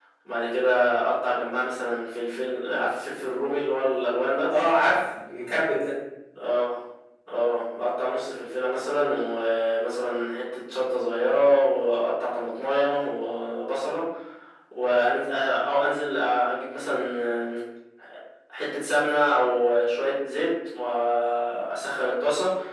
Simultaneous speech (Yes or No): No